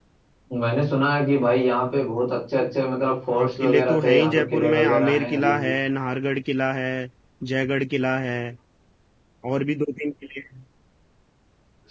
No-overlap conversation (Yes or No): No